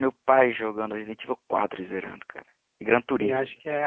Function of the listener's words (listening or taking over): taking over